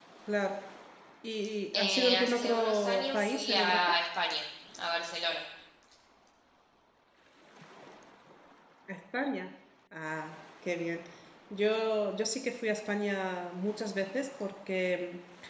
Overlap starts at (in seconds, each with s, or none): 1.7 s